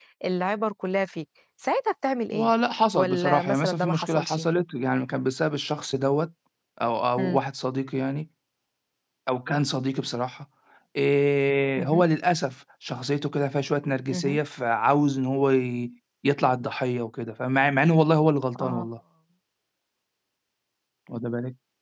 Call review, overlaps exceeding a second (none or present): present